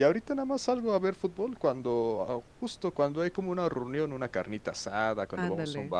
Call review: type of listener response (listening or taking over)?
listening